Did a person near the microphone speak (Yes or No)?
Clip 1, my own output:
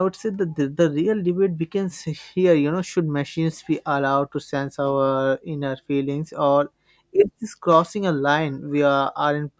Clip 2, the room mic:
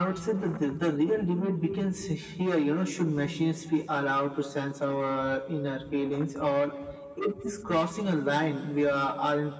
No